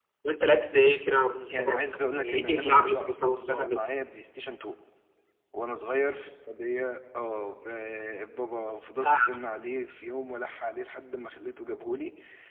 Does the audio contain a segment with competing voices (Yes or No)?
Yes